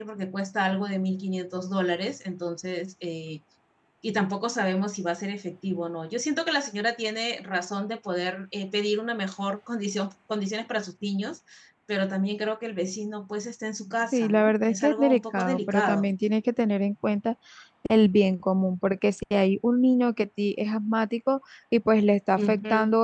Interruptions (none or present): present